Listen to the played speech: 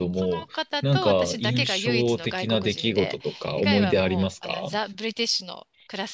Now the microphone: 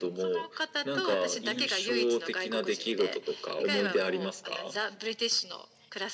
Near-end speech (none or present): none